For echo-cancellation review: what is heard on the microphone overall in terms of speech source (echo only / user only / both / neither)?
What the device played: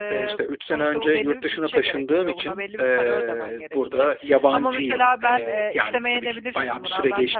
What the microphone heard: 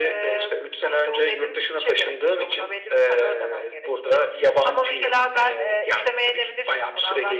echo only